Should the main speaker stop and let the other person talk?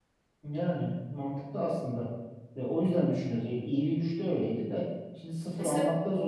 No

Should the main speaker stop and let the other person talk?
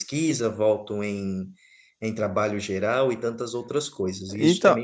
Yes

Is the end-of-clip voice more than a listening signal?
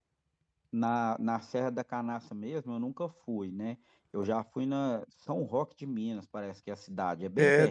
Yes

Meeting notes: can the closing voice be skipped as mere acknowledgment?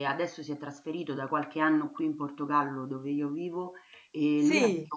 Yes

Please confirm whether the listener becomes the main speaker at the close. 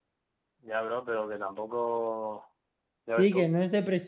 Yes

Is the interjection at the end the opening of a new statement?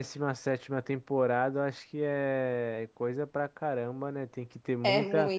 No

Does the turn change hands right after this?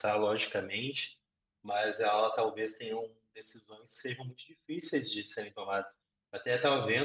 No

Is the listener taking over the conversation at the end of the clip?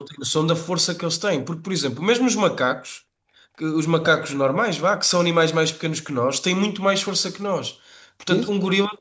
No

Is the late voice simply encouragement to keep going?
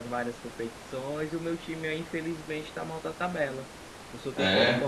Yes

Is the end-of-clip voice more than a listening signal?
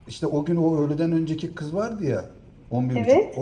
No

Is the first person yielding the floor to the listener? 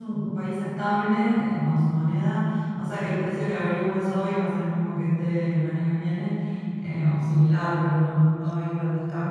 No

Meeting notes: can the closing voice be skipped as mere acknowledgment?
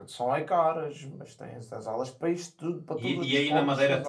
No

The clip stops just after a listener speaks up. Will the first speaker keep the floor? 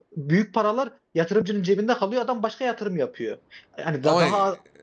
Yes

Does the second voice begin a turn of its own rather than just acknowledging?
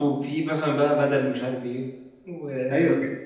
Yes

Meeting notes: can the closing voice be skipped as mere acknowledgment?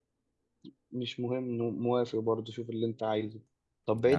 Yes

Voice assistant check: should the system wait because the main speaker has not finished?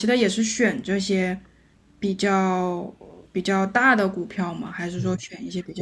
No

